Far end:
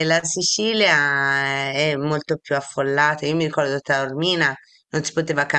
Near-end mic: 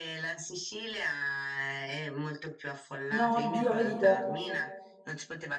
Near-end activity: present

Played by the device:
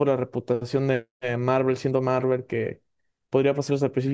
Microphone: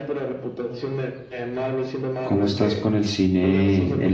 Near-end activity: present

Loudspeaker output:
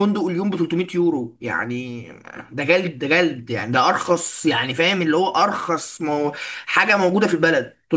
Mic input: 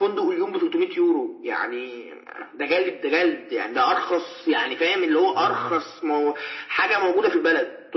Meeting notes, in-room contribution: present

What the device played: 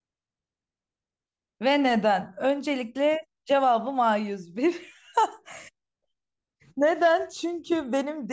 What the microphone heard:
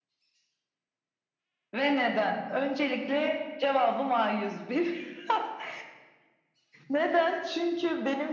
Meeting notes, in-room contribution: none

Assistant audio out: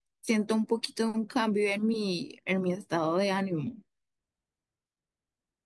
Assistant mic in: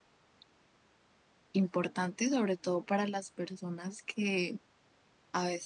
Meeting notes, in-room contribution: present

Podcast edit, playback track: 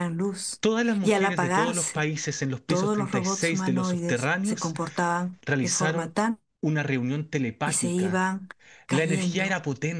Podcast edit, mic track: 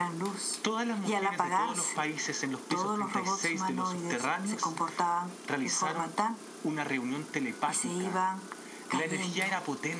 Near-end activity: none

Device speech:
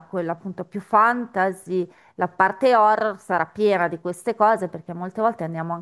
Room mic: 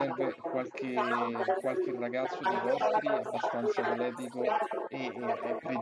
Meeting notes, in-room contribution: present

